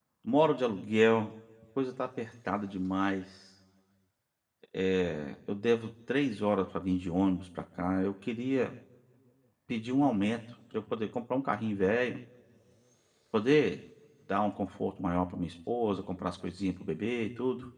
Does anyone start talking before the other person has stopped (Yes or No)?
No